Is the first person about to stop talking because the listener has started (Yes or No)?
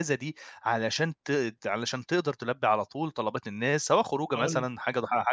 No